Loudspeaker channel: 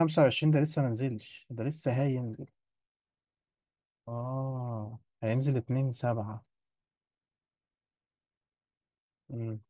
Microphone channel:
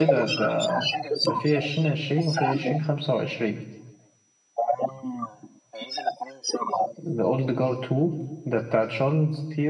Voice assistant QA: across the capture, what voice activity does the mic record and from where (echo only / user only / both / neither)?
both